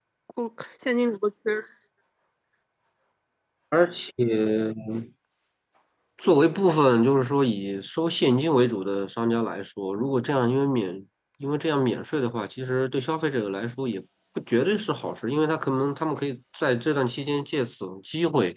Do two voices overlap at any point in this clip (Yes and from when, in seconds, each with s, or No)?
No